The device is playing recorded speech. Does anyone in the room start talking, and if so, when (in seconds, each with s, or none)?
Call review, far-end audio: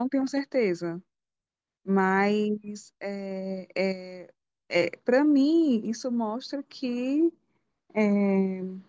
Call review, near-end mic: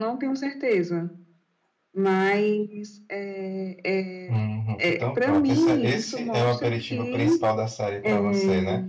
4.3 s